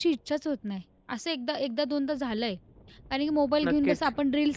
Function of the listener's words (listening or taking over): listening